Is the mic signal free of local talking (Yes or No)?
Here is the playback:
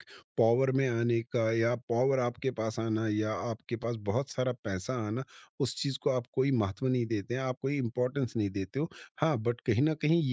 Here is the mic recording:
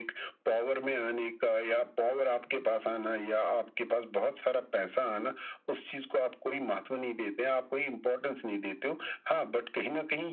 Yes